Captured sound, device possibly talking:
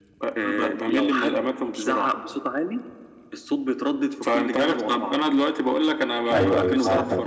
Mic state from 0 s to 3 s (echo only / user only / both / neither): echo only